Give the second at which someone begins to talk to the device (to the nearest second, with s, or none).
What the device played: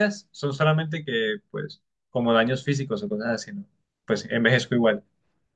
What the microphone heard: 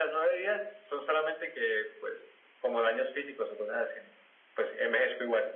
none